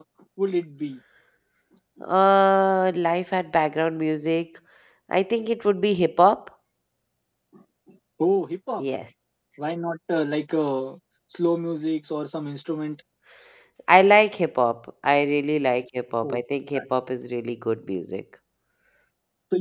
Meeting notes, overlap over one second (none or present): none